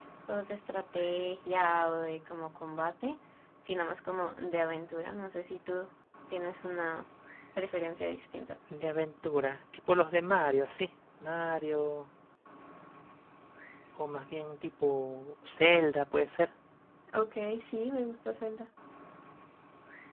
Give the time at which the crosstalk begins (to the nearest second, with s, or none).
none